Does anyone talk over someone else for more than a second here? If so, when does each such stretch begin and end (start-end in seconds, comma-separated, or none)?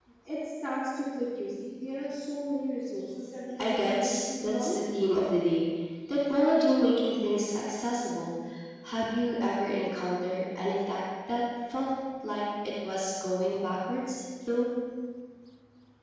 3.6-4.8